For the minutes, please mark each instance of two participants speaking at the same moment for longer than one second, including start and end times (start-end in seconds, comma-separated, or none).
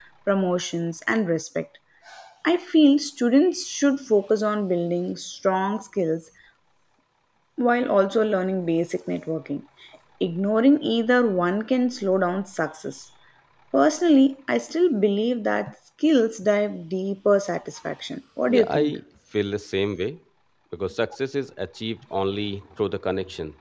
none